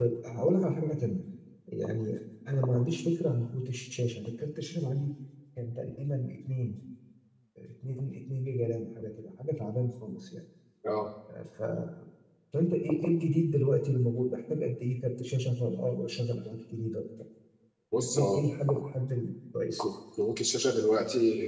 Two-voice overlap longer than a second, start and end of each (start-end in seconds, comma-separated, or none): none